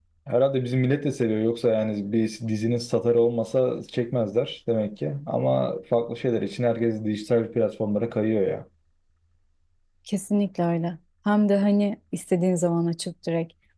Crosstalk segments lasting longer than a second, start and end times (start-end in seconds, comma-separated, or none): none